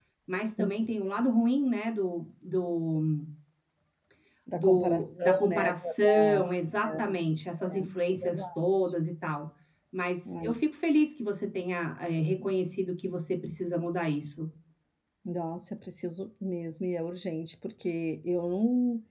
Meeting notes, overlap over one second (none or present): present